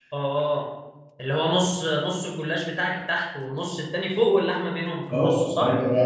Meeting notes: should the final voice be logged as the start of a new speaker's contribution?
Yes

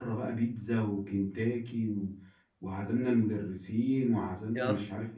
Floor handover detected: No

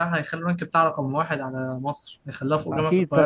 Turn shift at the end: Yes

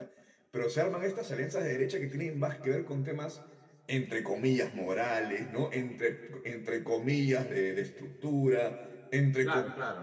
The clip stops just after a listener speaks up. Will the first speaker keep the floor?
Yes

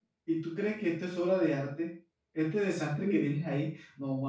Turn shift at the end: No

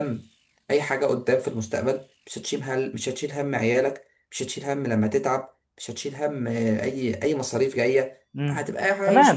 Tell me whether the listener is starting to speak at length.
Yes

